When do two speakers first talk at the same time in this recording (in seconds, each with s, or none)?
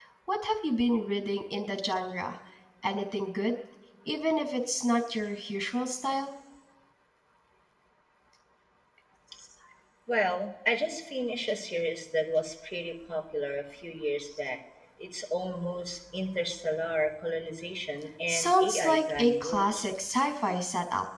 18.3 s